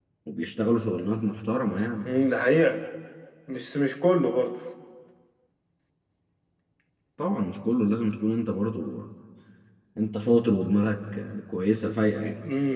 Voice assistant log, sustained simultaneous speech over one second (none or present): none